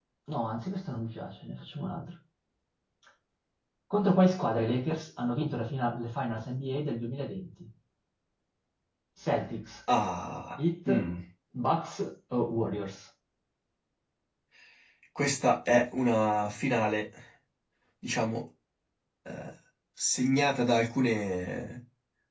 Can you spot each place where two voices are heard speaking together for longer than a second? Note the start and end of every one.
none

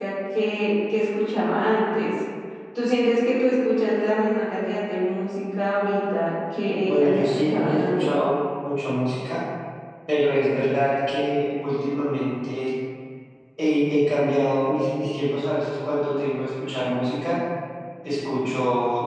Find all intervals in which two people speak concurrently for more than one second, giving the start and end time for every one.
6.9-8.1

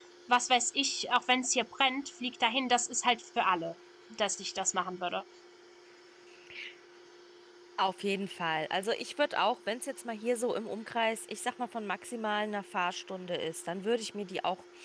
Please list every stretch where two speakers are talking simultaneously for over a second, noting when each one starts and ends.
none

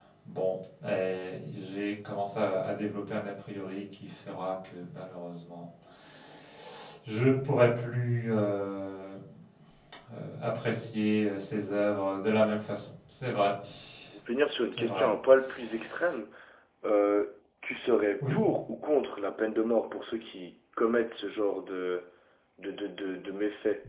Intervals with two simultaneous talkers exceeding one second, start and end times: none

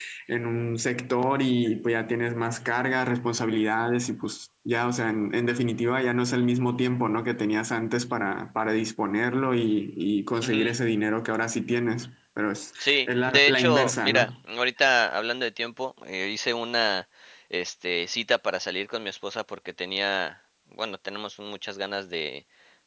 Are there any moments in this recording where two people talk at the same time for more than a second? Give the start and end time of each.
12.8-14.3

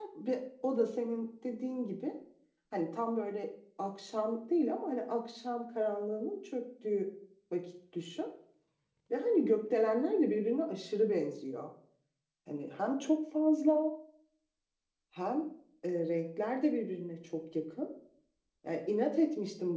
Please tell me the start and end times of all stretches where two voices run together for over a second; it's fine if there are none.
none

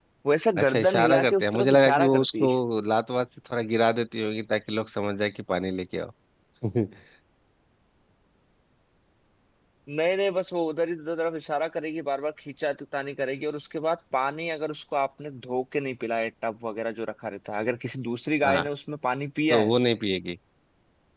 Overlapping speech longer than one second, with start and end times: 0.6-2.5

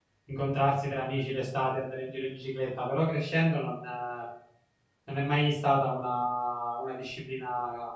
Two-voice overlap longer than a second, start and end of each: none

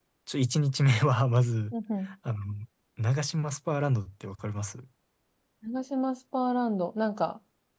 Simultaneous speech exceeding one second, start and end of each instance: none

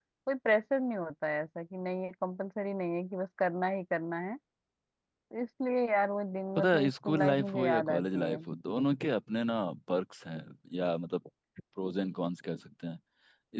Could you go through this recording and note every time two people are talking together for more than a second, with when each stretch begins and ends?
6.6-8.4

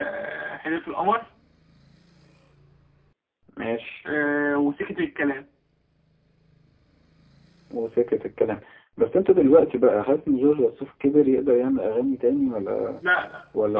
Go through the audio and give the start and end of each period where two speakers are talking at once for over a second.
none

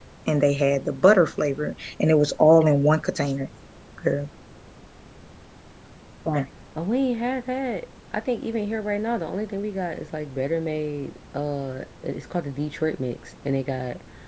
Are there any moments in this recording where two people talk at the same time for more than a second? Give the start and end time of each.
none

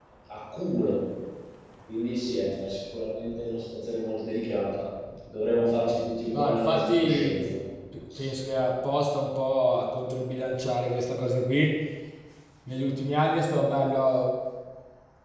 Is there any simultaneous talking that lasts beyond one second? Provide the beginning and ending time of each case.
6.3-7.5

